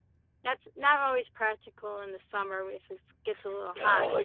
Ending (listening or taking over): taking over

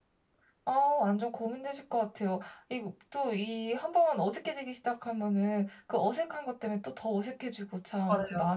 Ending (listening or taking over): listening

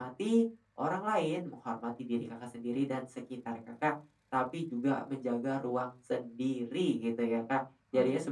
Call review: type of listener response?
listening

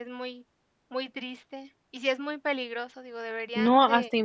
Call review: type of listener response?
taking over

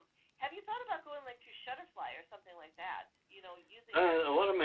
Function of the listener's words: taking over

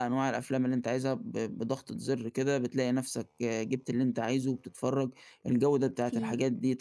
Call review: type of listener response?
listening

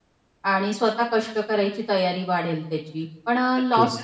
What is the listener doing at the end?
listening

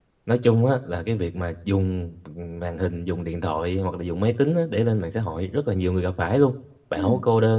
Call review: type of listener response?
listening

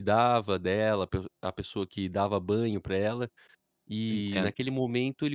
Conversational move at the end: listening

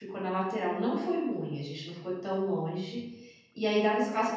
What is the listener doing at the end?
listening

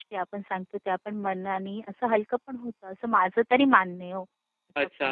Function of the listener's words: taking over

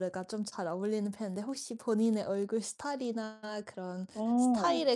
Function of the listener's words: listening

